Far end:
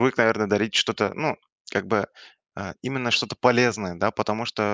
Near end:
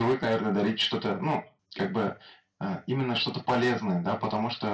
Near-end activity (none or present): none